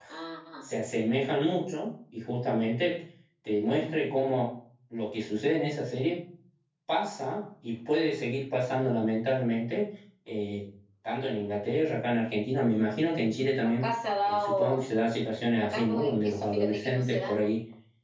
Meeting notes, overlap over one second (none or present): present